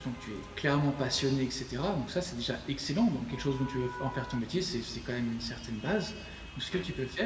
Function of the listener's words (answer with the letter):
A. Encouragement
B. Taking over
A